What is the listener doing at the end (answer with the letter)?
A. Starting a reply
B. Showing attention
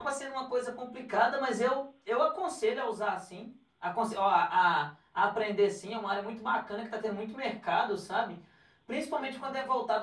B